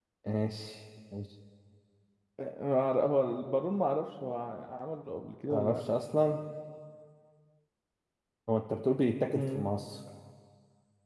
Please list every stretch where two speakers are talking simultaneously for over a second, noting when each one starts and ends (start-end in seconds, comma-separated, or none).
none